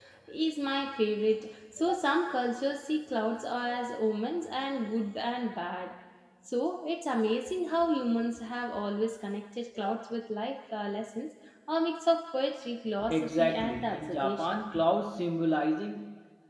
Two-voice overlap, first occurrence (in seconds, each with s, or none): 13.1 s